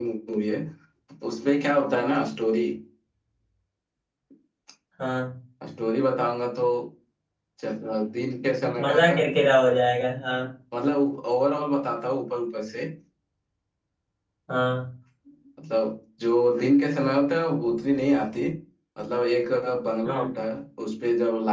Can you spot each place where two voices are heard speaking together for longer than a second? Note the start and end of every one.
none

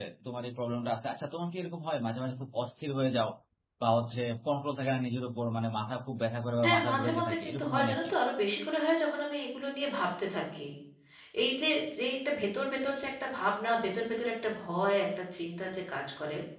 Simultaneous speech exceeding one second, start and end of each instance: 6.6-8.1

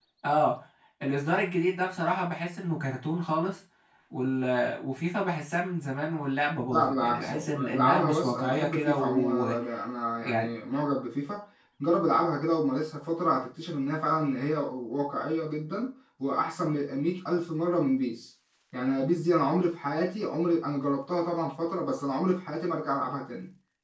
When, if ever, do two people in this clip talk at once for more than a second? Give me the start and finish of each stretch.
6.7-9.6

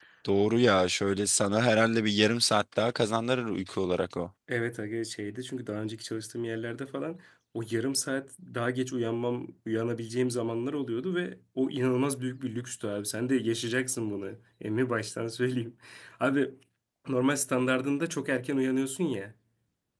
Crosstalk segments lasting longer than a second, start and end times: none

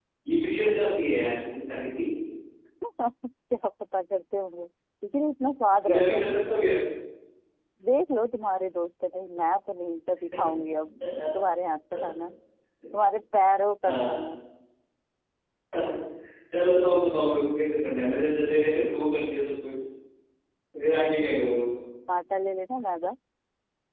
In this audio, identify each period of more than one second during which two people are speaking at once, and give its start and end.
none

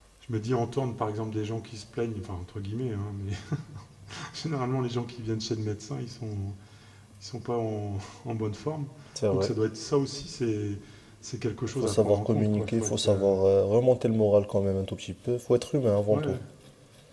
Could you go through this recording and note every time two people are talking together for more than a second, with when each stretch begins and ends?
11.8-13.3

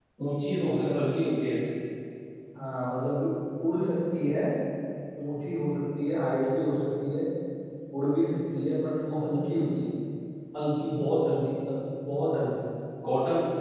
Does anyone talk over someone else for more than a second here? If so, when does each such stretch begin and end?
none

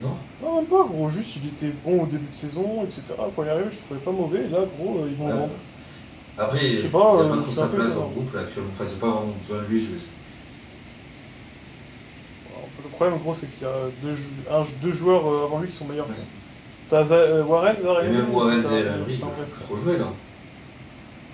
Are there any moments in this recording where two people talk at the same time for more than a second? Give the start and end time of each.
6.8-8.2, 18.0-19.5

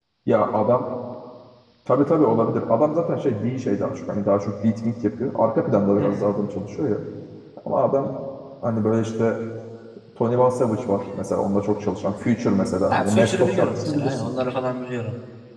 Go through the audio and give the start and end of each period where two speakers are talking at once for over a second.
12.9-14.3

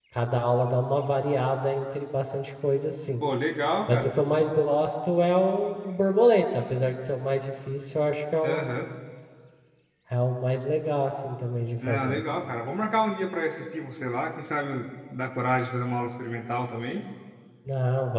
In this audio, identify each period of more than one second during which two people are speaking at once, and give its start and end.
none

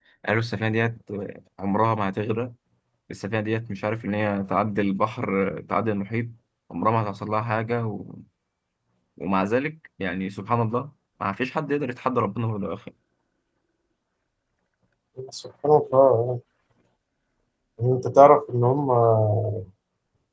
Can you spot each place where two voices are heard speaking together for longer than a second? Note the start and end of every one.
none

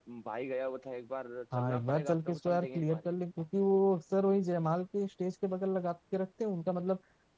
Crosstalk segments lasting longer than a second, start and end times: 1.5-3.1

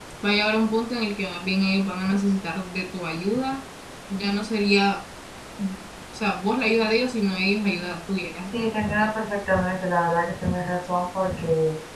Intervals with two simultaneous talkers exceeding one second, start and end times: none

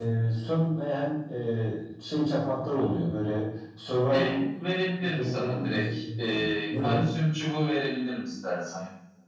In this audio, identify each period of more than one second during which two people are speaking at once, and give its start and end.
5.0-7.0

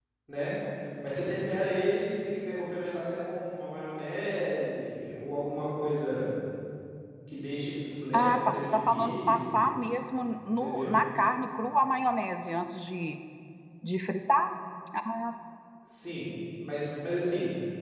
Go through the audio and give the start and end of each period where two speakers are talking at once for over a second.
8.1-9.6

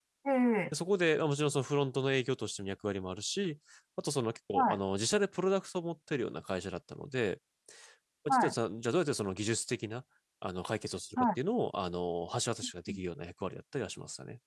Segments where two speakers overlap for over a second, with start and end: none

